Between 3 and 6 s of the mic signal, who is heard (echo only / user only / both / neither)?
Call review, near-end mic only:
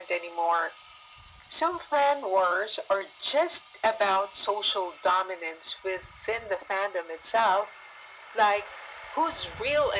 echo only